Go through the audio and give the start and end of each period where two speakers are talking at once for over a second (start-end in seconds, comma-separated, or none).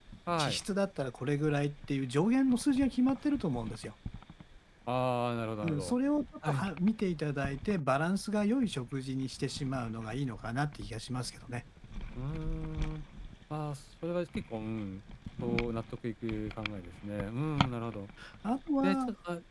none